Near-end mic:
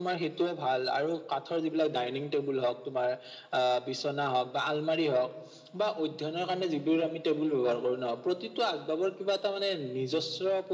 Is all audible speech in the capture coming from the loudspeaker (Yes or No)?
Yes